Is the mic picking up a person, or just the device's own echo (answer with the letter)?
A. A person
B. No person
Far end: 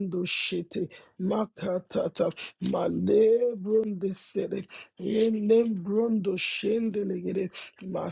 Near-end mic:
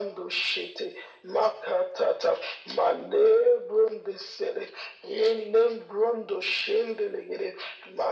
B